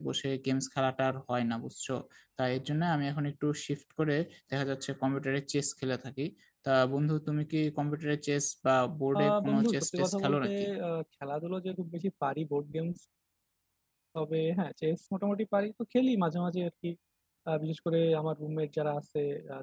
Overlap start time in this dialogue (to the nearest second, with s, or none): 9 s